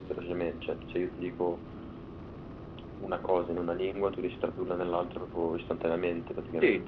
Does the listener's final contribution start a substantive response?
Yes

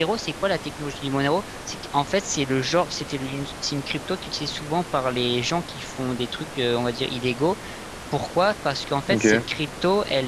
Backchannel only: Yes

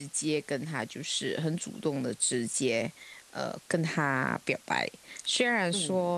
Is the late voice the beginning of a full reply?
No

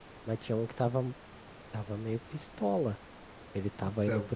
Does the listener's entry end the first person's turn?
No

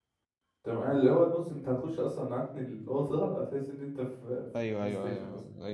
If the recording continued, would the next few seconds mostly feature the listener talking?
Yes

